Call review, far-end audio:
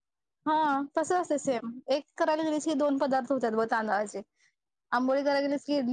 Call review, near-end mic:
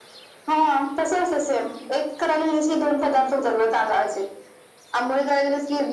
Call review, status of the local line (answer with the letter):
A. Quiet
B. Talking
A